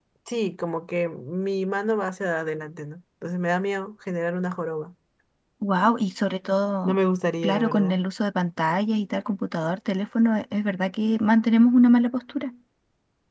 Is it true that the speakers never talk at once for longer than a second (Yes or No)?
Yes